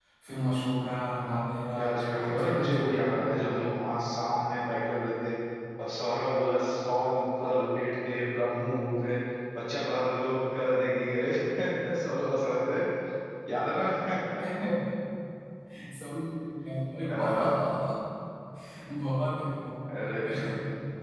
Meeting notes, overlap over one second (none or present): present